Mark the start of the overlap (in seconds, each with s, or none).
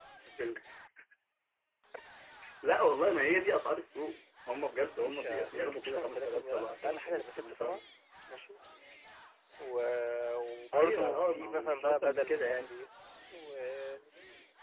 5.0 s